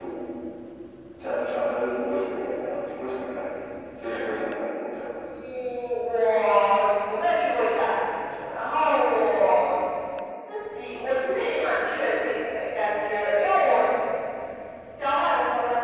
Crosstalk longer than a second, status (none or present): none